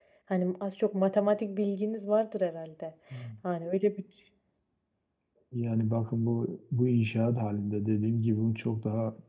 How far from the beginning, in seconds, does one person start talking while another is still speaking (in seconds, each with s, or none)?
none